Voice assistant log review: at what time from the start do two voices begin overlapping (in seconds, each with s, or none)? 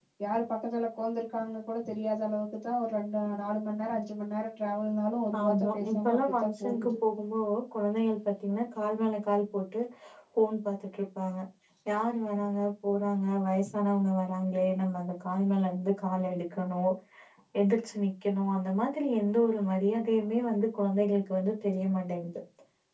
5.3 s